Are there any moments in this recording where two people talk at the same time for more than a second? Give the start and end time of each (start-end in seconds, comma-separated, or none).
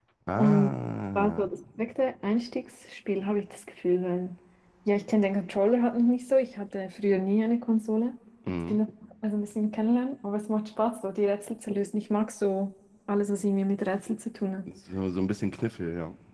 none